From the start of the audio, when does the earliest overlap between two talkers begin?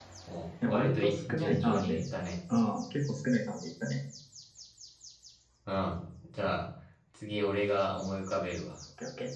0.7 s

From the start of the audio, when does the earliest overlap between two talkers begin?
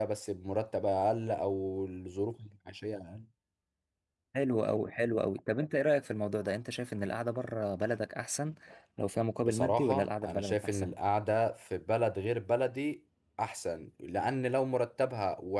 9.4 s

